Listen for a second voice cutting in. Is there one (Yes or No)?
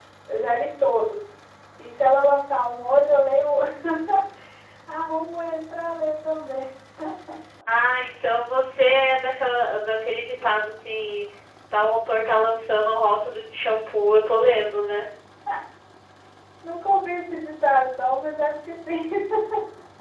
No